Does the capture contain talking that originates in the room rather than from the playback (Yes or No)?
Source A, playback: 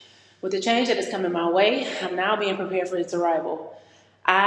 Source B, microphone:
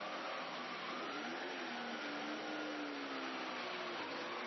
No